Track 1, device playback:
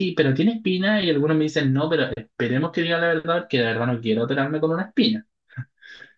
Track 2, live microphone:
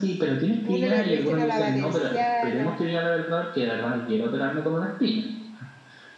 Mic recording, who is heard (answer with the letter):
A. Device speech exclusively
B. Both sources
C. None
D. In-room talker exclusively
B